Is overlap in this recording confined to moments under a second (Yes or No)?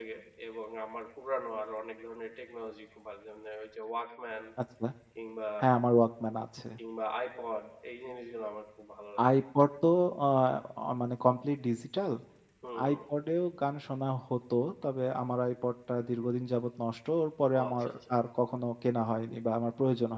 Yes